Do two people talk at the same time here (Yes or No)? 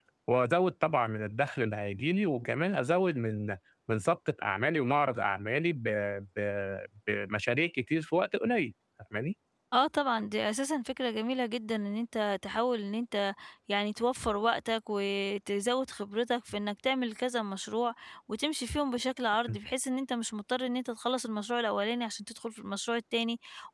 No